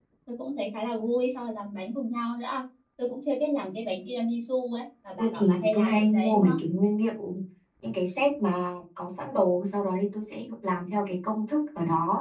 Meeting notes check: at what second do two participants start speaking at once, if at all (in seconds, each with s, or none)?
5.2 s